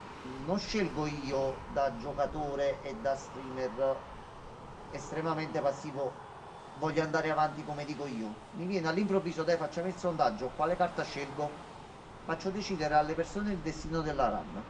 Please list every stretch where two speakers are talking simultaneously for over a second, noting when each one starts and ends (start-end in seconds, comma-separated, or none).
none